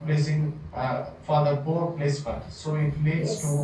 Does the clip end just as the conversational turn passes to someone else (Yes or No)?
No